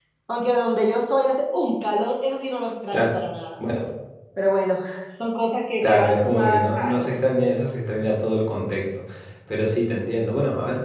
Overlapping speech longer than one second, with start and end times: 5.8-7.2

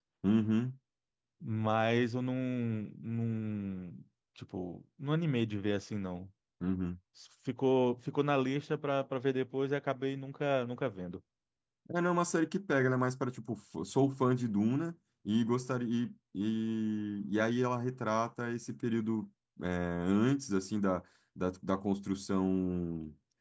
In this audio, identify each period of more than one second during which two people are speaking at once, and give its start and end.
none

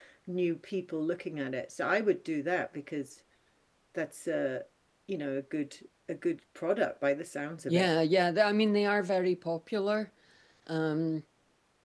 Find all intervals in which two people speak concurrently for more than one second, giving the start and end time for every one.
none

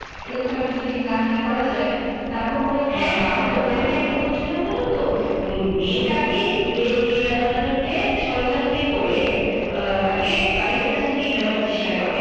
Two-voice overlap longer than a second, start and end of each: 2.9-4.2

